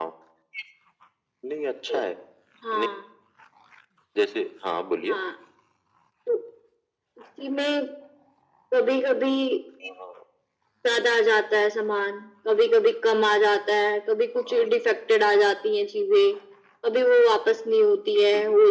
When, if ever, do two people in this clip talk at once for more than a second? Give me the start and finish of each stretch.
none

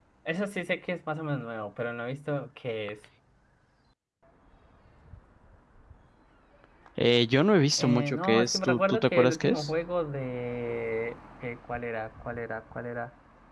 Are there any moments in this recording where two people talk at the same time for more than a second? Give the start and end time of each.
7.8-9.7

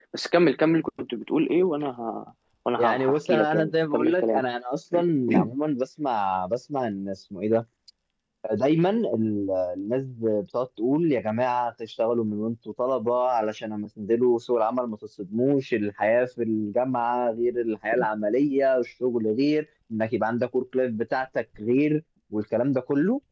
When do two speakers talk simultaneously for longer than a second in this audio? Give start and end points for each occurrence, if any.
2.8-4.5

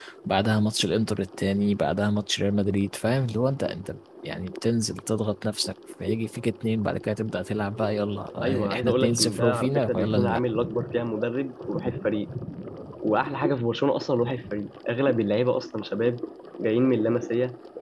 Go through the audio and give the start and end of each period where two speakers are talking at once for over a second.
8.4-10.4

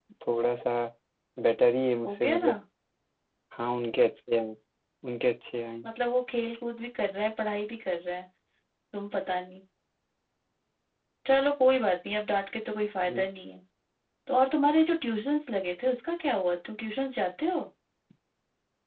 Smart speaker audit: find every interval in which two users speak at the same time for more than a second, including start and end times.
none

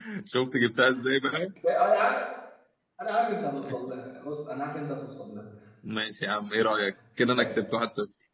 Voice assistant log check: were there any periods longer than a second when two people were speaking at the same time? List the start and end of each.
none

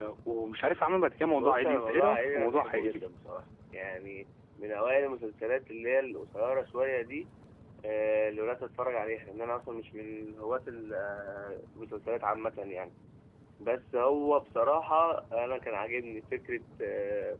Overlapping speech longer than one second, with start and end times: 1.4-3.0

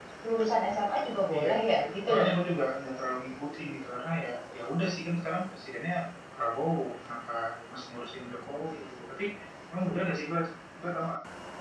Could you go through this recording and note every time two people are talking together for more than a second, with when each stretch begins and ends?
none

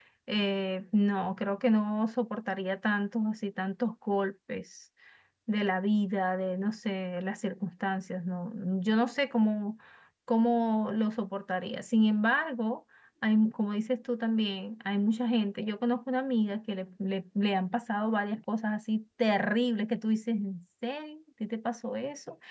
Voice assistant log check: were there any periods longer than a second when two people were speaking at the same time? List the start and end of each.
none

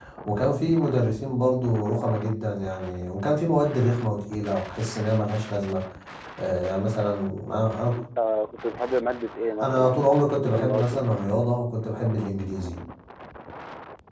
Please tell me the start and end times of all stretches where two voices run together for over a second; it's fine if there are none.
none

